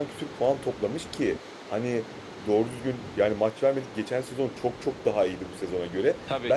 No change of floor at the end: Yes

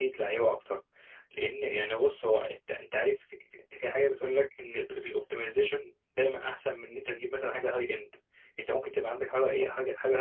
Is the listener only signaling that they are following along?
Yes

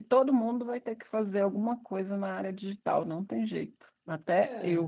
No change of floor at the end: No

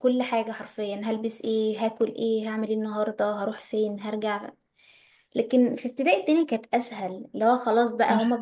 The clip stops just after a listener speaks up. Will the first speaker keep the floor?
Yes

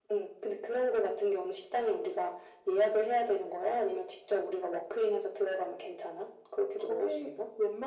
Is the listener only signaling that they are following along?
No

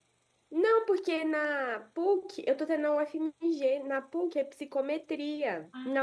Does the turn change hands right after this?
No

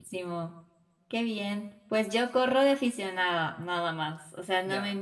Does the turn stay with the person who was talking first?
Yes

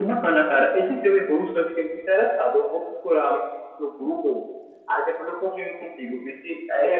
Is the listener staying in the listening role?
No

